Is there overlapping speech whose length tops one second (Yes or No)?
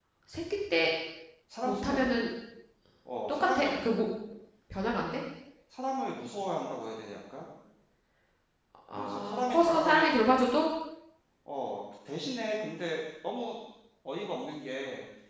Yes